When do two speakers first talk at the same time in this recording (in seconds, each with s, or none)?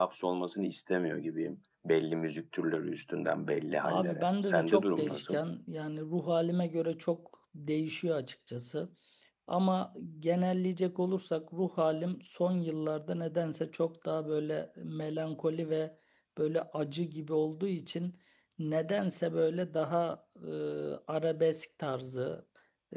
3.8 s